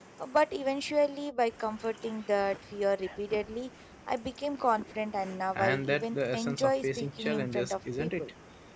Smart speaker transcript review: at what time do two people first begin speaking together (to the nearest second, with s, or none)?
6 s